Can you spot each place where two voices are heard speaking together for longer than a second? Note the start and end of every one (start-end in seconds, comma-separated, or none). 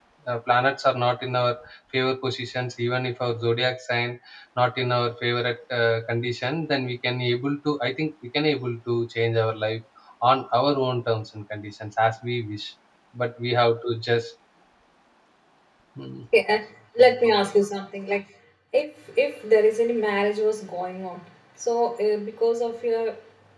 none